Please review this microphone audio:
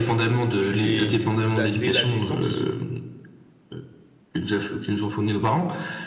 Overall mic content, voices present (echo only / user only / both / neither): both